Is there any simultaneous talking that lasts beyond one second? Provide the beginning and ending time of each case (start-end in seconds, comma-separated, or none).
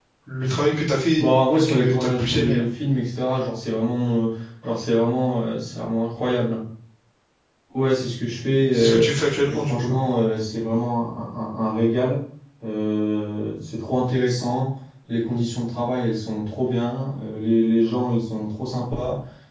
1.2-2.6